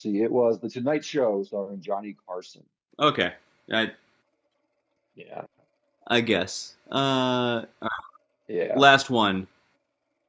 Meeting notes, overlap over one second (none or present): none